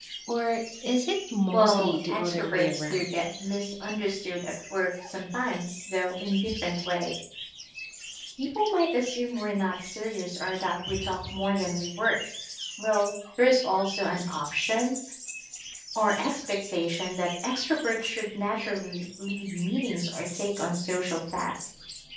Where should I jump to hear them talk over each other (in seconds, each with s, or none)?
1.5 s